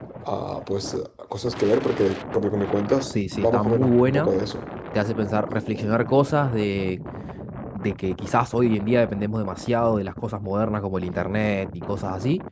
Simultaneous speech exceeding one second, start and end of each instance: 3.0-4.3

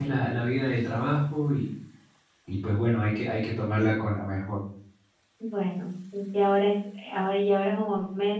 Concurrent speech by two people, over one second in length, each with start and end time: none

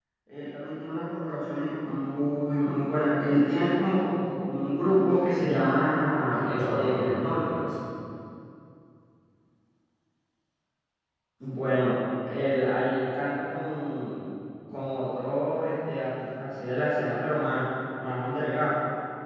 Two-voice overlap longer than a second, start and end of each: 6.3-7.6

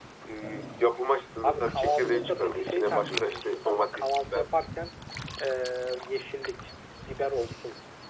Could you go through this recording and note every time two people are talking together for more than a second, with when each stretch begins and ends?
1.4-4.5

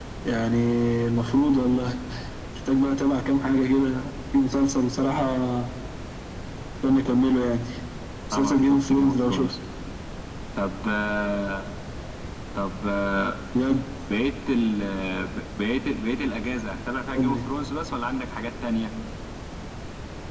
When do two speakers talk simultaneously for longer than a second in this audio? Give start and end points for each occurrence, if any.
8.3-9.5

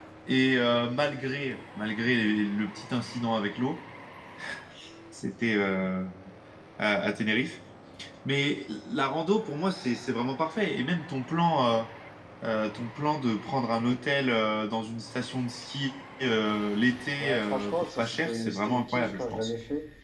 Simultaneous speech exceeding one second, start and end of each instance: 17.2-19.5

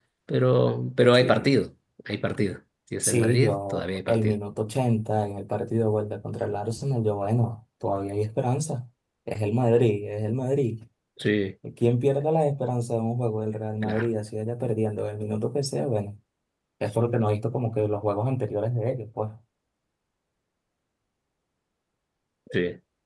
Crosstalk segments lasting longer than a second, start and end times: 3.0-4.3

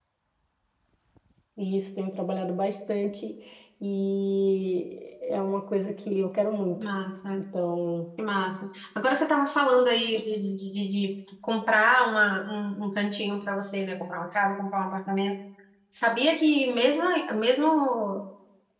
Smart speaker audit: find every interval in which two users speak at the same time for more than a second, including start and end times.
none

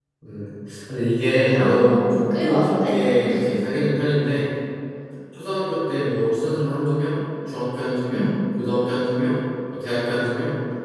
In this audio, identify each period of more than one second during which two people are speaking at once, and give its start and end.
1.5-3.0

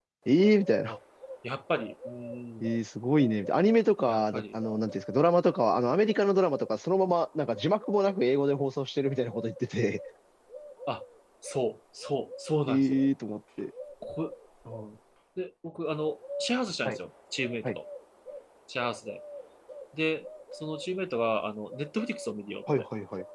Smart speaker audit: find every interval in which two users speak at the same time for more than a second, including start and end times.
none

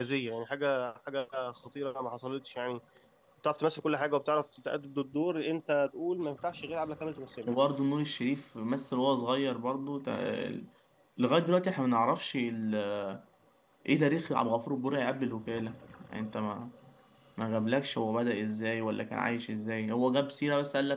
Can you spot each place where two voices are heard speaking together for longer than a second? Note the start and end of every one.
none

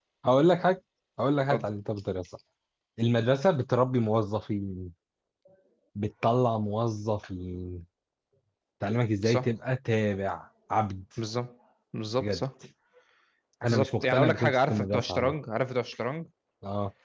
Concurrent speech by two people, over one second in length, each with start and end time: 13.7-15.3

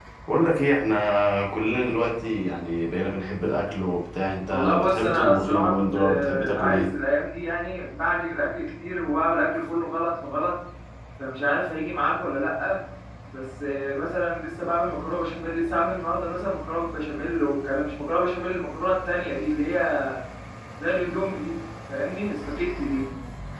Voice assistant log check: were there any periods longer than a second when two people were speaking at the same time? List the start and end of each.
4.5-6.9

